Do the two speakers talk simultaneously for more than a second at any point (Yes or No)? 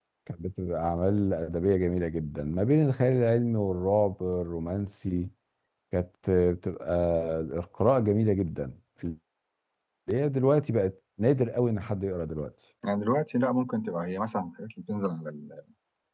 No